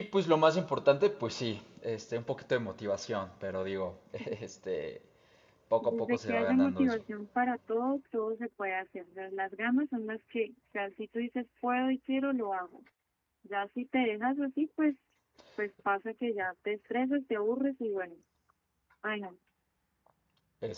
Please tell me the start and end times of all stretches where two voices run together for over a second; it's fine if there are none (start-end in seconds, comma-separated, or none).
5.8-7.0